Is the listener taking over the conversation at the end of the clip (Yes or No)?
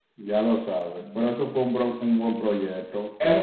Yes